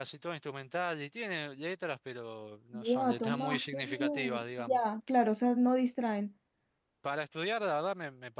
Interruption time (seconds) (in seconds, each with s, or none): 2.7 s